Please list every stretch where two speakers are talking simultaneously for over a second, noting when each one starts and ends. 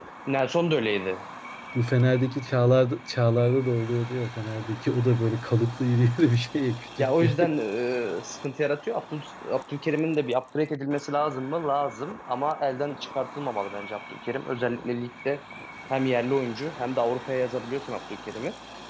none

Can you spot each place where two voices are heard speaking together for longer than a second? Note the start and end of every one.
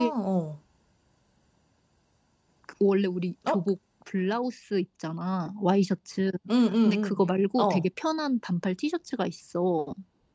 none

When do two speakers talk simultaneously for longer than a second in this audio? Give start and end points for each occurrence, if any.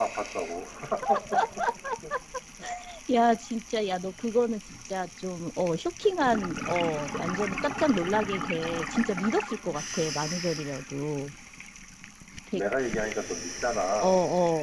none

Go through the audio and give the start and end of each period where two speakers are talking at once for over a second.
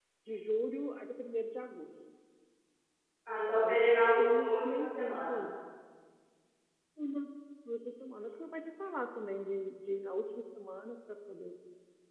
3.5-5.5

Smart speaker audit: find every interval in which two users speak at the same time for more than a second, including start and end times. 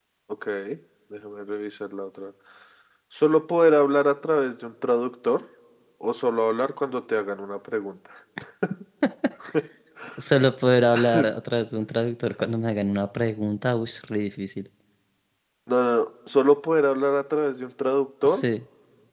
none

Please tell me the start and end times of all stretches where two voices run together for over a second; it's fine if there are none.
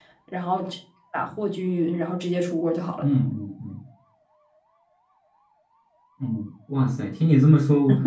none

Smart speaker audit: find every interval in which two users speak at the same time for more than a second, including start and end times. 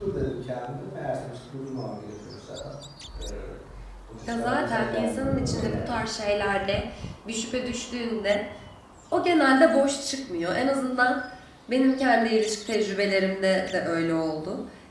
4.2-6.0

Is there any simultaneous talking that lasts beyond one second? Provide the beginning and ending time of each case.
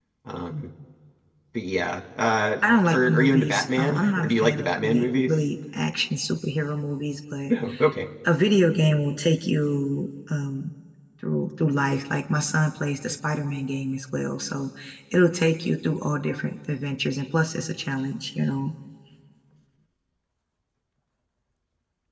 2.8-5.3

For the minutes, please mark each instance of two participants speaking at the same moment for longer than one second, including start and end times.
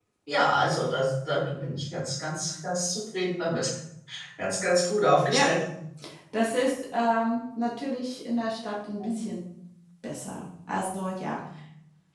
none

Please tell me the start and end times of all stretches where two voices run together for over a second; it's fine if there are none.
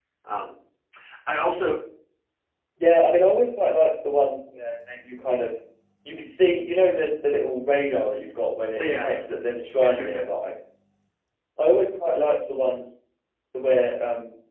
none

